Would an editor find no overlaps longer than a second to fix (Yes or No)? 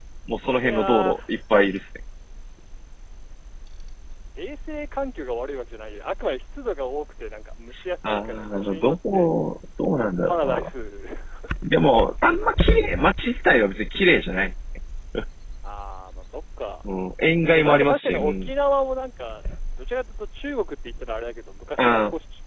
No